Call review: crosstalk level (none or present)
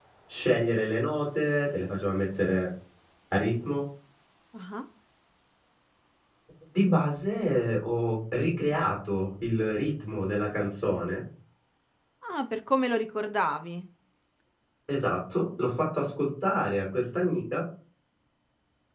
none